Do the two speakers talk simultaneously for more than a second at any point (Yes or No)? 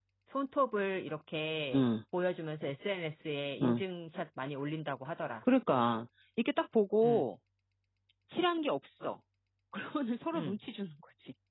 No